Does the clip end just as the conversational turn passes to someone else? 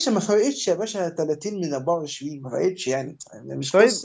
Yes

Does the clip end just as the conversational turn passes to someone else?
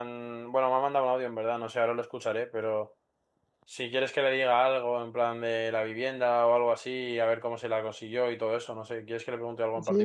Yes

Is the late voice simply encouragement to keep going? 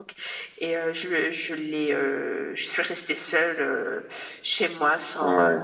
Yes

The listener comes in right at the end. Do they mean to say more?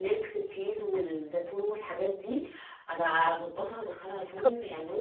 Yes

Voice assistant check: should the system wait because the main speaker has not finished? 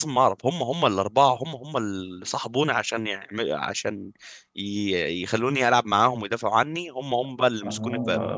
No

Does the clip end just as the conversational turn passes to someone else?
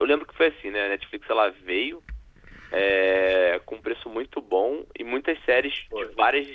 No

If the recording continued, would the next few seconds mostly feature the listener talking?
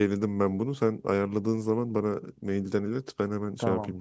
Yes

